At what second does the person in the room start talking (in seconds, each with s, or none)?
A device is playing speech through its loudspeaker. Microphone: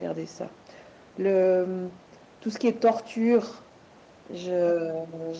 none